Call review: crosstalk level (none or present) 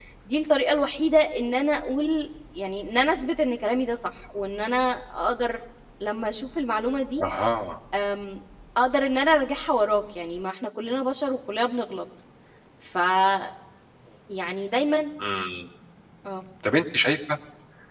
none